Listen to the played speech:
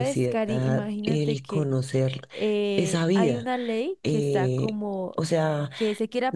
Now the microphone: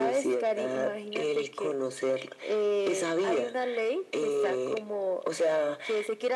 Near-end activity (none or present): none